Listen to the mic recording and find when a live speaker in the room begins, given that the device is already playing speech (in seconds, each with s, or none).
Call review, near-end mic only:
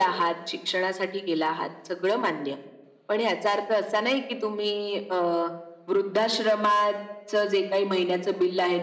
none